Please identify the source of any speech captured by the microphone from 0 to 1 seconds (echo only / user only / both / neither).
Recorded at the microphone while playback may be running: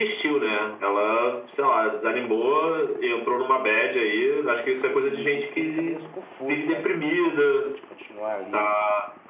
echo only